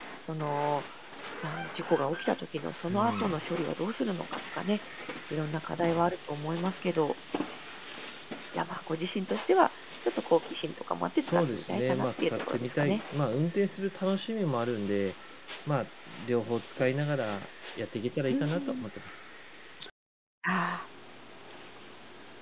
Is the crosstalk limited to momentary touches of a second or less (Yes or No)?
No